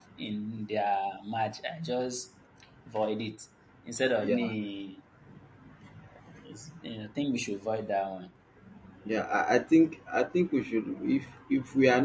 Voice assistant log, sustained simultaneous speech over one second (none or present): none